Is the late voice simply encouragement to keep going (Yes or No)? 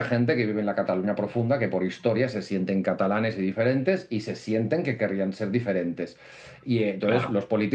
Yes